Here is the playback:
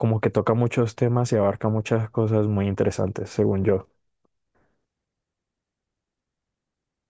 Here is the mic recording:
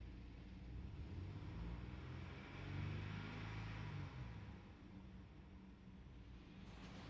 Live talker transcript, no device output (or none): none